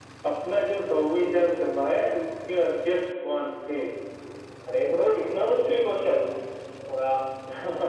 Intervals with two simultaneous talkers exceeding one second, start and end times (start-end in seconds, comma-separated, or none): none